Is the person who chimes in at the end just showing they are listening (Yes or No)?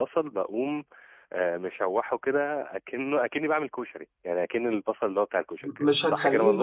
No